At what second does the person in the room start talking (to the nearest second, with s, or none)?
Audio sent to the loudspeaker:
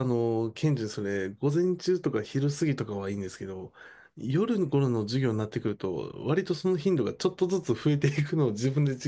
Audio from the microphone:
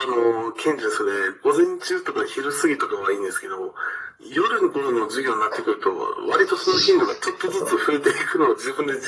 5 s